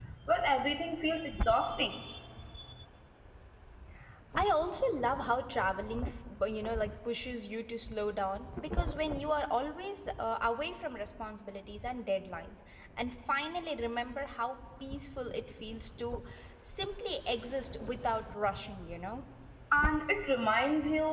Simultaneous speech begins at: none

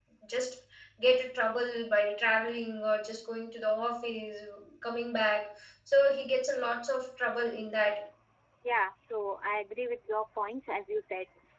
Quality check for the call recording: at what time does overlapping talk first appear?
none

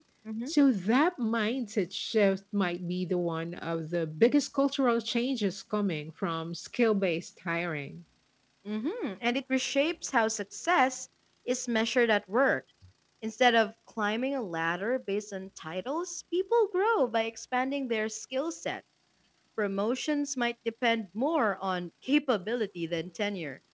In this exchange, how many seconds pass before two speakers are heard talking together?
none

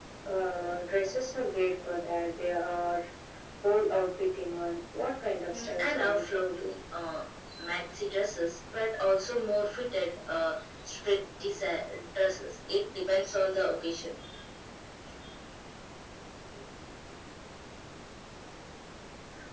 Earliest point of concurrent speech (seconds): 5.5 s

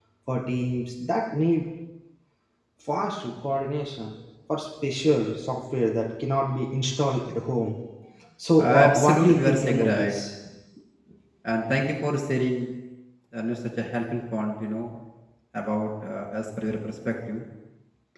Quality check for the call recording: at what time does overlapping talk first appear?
8.8 s

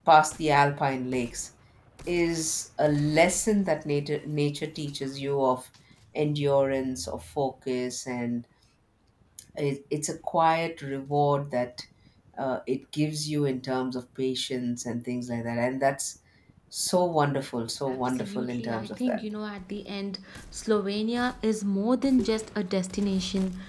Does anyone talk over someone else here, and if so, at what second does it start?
17.9 s

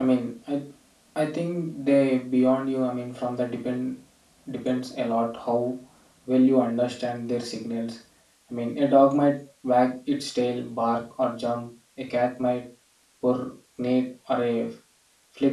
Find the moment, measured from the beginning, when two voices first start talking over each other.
none

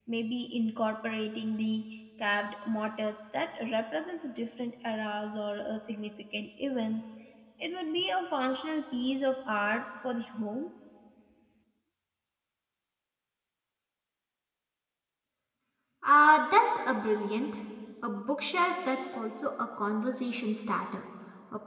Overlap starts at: none

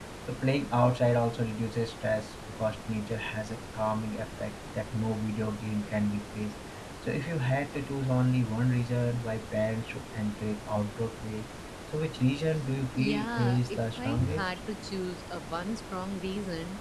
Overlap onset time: 12.9 s

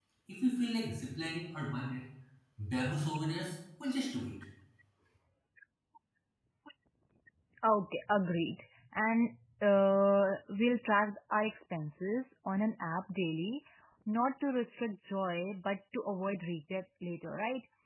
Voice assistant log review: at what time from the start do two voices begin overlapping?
none

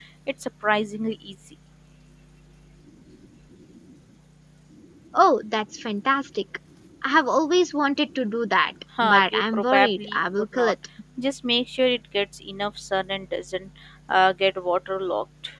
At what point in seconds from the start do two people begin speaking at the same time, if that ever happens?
9.0 s

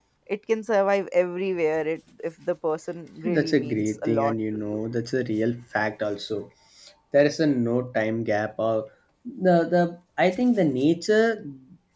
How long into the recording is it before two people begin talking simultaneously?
3.2 s

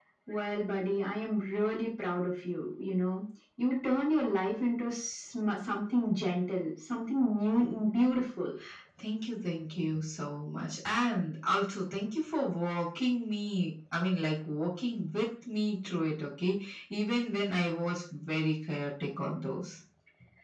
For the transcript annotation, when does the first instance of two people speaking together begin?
none

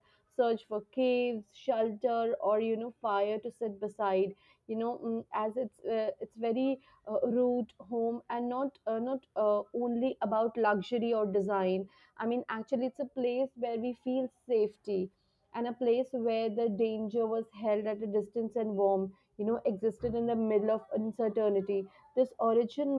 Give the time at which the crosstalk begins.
none

